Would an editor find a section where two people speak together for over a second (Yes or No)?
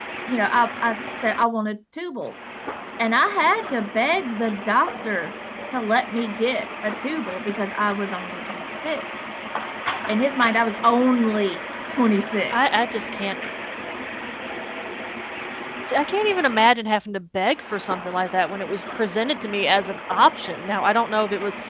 No